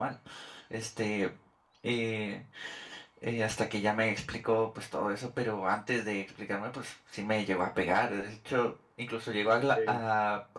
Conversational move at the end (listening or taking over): listening